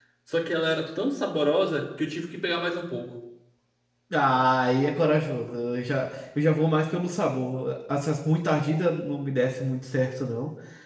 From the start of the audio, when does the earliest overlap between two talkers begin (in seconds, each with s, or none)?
none